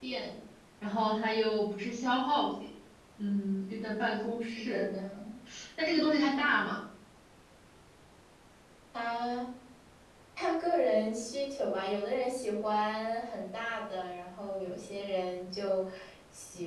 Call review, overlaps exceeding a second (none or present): none